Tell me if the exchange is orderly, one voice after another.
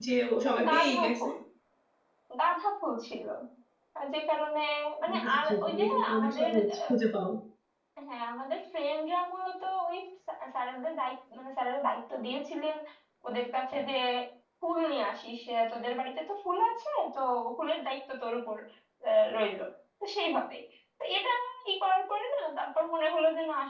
No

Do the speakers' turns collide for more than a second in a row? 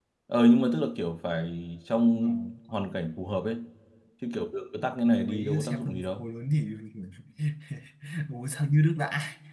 Yes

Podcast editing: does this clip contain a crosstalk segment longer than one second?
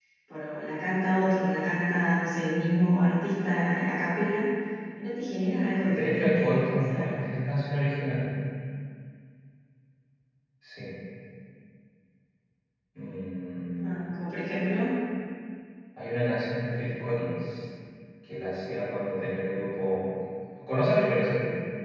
Yes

